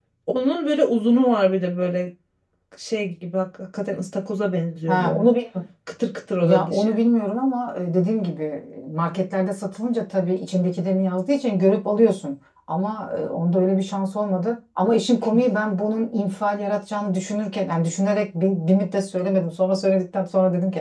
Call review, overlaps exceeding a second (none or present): none